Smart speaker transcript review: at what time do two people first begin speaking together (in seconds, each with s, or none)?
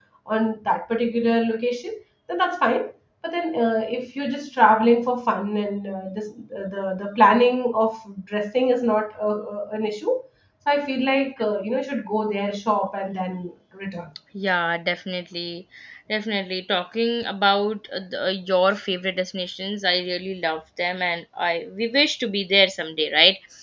none